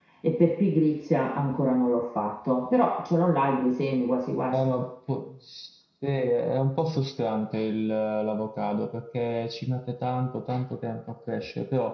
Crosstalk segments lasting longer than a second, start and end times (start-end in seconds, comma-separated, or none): none